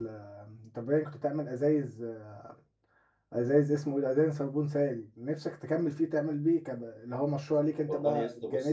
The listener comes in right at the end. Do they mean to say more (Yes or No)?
Yes